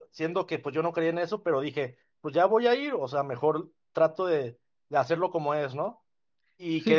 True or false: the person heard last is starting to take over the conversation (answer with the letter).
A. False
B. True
A